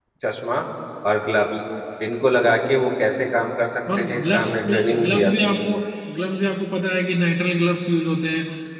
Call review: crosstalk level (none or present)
present